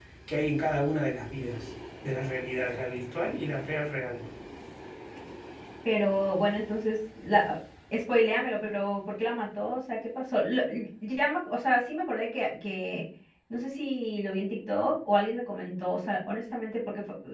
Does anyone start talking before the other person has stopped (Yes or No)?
No